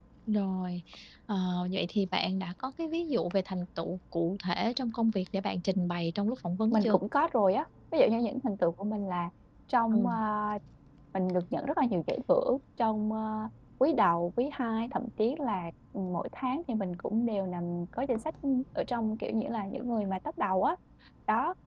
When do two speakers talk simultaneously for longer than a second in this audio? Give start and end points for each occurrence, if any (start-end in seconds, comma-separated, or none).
none